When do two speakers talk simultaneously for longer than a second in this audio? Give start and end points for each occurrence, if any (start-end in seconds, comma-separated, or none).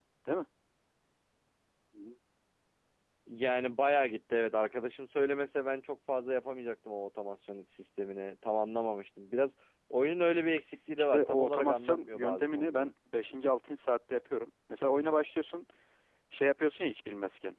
11.0-12.9